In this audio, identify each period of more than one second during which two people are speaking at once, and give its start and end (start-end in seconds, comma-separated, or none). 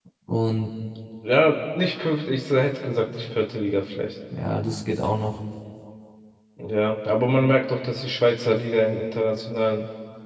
none